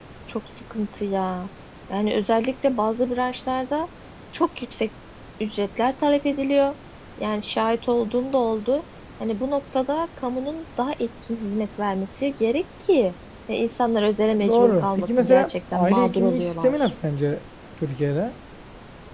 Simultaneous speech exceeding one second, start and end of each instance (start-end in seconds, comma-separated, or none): 14.3-16.9